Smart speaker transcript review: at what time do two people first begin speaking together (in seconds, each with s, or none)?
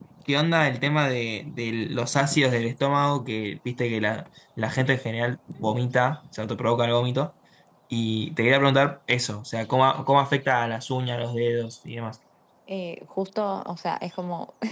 none